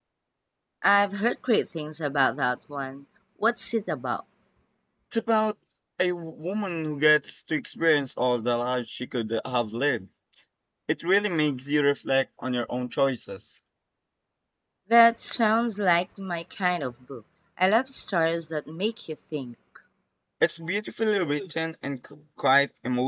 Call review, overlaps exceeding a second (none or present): none